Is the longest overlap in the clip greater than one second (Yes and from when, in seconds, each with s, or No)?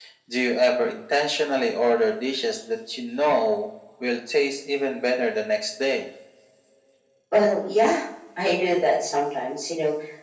No